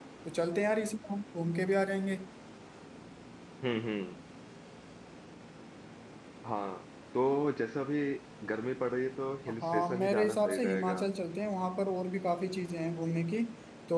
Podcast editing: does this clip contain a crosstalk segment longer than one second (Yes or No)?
Yes